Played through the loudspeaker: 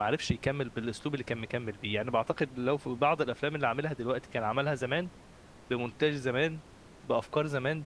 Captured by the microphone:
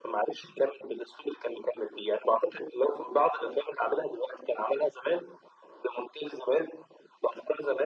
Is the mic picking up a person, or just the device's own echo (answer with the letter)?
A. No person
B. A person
A